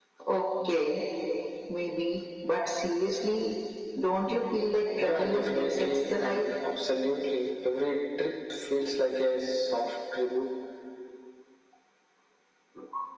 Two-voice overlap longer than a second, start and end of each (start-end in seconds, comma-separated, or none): 5.0-6.5